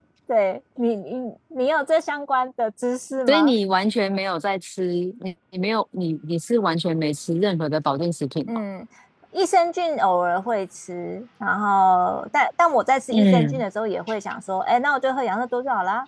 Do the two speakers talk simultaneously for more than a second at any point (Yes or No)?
No